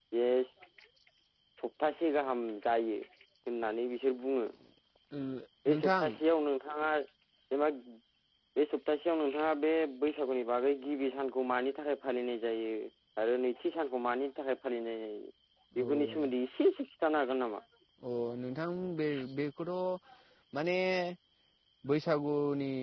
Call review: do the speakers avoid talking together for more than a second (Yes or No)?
Yes